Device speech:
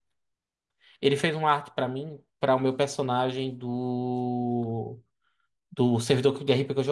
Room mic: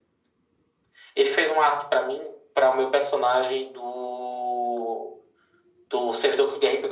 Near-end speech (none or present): none